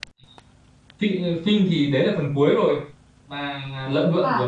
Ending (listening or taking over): listening